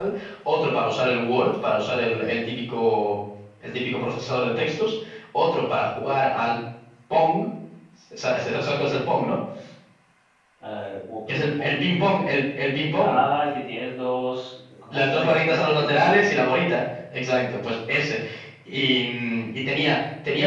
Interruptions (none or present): present